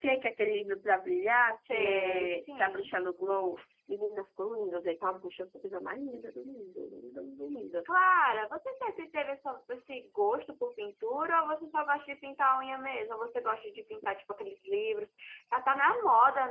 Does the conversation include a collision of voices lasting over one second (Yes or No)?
Yes